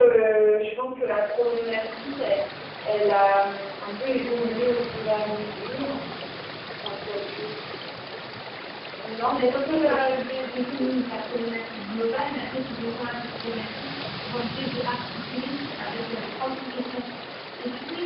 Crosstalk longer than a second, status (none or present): present